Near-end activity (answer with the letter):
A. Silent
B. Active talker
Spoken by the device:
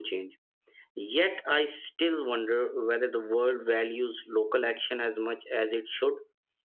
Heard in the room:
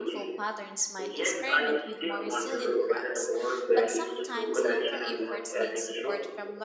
B